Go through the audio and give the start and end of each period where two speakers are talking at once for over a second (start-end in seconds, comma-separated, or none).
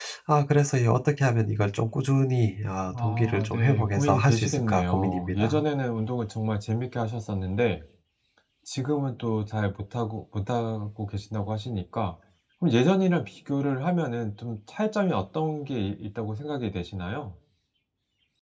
2.9-5.6